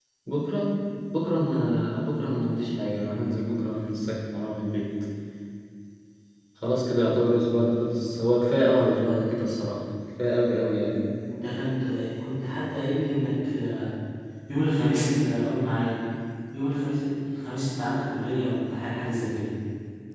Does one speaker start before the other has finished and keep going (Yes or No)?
No